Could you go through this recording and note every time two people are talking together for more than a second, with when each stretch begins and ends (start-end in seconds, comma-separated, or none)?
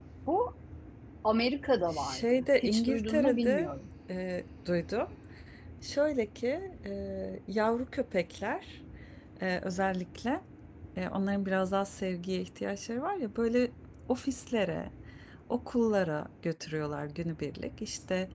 1.9-3.7